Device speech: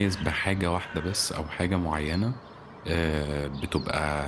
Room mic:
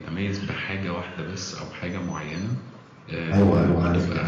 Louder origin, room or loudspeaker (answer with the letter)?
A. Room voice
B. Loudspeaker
A